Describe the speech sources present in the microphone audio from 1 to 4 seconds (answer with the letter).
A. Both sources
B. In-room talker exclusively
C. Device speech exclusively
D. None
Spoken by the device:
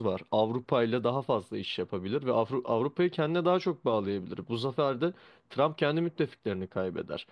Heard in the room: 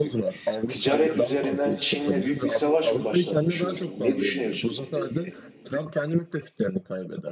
A